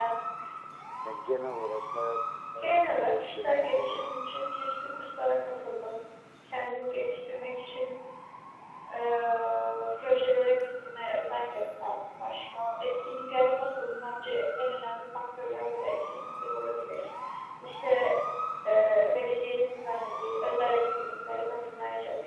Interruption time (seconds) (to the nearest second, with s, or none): 3 s